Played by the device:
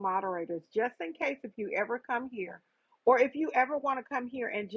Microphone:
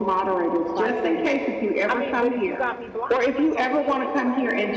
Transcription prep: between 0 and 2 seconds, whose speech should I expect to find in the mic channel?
both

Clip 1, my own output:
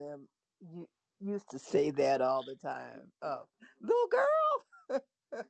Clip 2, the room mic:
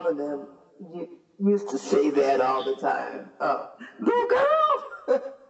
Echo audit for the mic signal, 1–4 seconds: echo only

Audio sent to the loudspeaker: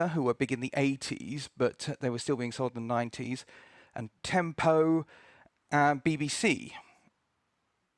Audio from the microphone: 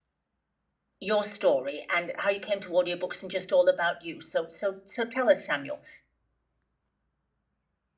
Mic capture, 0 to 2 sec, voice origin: user only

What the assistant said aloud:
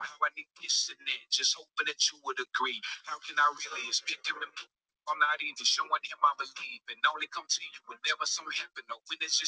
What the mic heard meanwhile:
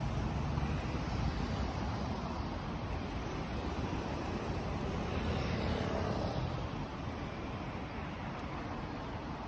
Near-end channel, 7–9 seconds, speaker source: neither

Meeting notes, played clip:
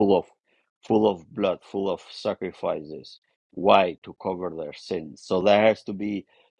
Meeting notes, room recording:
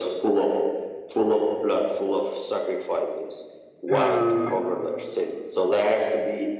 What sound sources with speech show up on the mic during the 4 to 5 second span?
both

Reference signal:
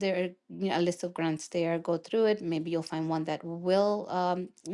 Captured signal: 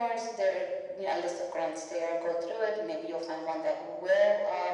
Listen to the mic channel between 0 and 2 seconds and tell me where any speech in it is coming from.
echo only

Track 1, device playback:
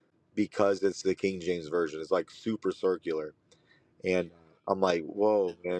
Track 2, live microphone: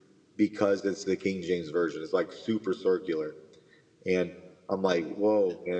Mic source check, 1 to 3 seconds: echo only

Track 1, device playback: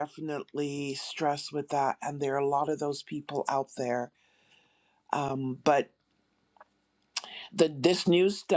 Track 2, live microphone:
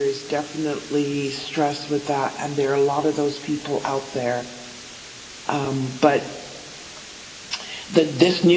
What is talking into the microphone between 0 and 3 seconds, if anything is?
echo only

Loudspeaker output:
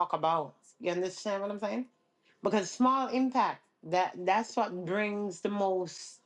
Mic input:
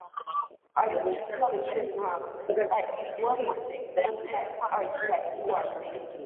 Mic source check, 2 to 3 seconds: both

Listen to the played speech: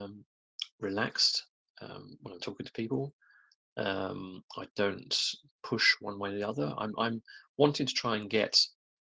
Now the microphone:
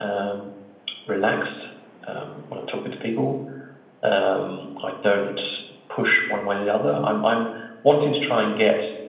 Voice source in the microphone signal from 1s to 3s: echo only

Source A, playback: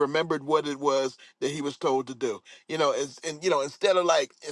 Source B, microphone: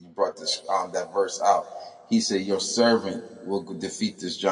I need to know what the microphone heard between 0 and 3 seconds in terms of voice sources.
user only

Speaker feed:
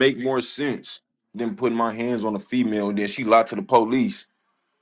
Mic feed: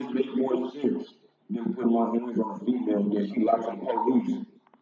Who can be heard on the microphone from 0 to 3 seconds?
echo only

